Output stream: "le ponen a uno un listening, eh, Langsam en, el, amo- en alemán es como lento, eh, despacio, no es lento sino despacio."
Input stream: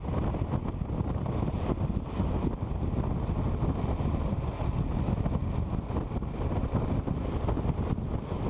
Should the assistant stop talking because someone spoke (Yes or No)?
No